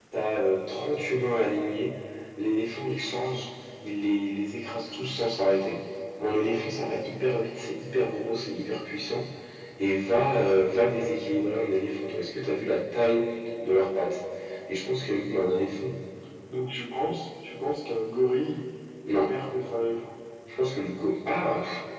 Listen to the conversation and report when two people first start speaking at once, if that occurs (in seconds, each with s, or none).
none